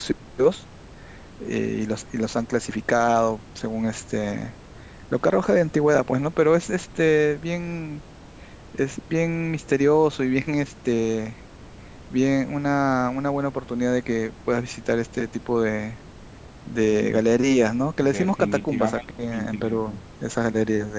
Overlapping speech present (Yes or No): Yes